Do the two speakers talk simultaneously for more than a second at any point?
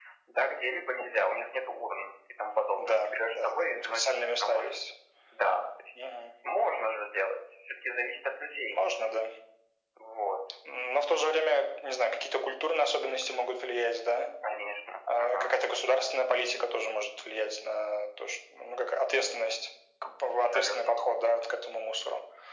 Yes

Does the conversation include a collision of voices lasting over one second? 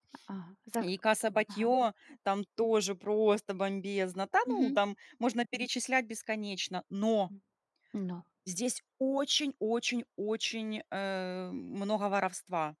No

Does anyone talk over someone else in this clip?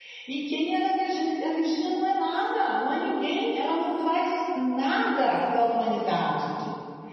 No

